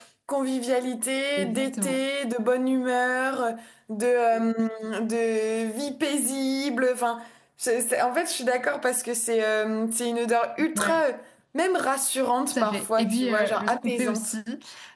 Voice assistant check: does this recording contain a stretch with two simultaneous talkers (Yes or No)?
Yes